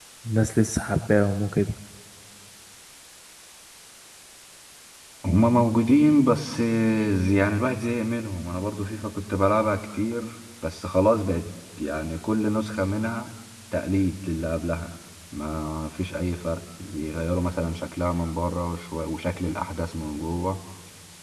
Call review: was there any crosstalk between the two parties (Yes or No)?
No